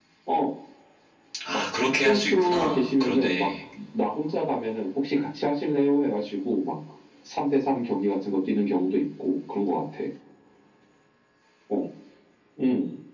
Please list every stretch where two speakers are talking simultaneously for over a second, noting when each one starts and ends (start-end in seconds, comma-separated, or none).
2.0-3.5